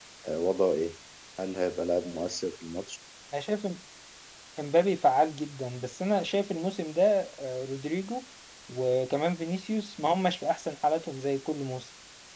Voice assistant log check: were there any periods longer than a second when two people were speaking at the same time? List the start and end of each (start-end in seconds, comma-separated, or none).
none